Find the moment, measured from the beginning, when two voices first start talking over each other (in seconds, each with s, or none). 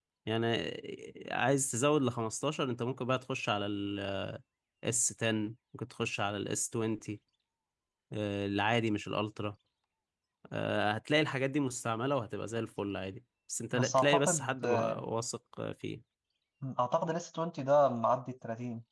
13.7 s